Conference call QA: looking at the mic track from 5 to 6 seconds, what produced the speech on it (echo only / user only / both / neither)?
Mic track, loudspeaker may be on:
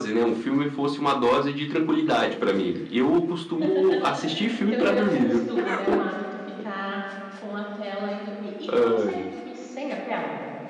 both